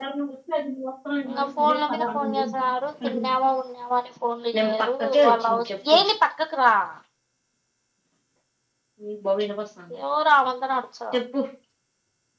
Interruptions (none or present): present